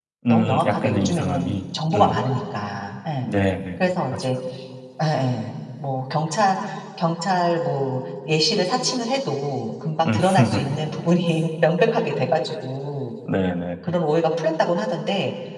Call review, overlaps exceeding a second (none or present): present